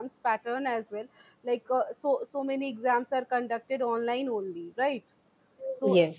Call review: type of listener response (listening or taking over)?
listening